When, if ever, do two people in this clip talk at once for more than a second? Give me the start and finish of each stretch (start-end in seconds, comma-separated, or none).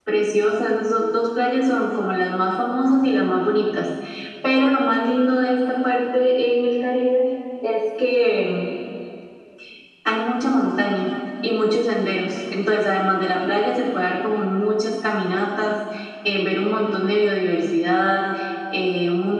none